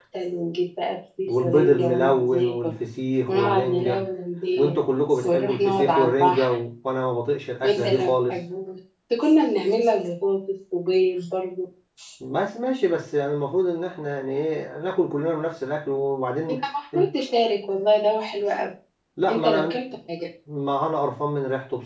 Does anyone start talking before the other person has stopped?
Yes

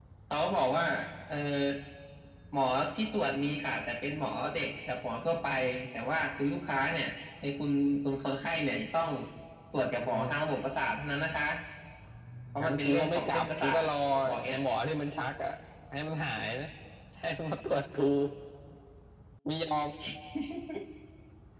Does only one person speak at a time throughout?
No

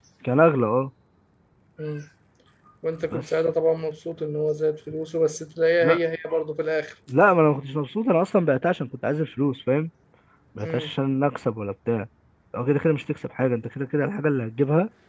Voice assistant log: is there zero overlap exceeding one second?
Yes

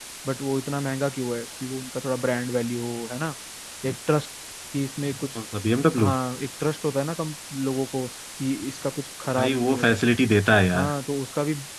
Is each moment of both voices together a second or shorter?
Yes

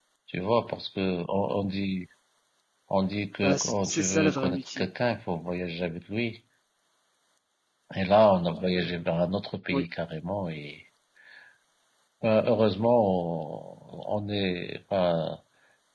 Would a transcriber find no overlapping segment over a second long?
No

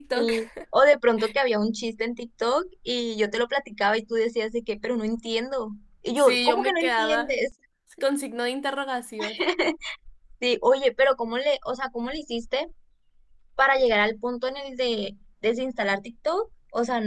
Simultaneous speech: Yes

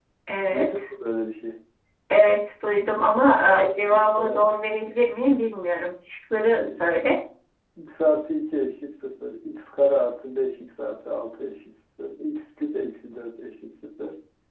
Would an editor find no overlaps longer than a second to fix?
No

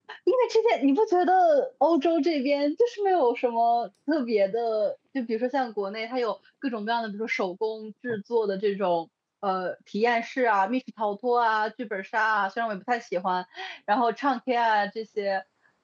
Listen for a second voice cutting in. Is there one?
No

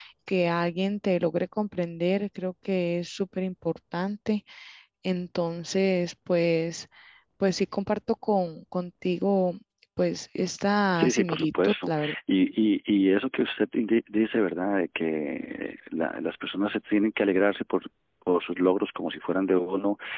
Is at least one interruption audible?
Yes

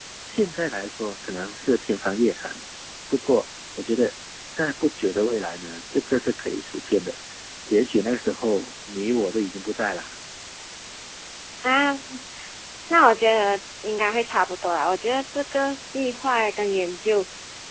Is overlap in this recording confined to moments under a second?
Yes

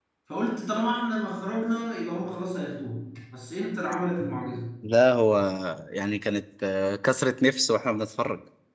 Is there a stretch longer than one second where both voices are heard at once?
No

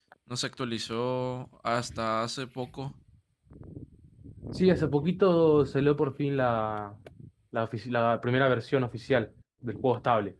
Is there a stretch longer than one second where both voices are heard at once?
No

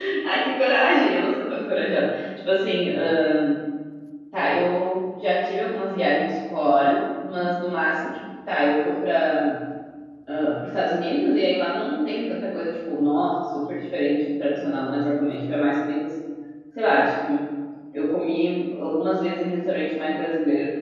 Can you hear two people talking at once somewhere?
No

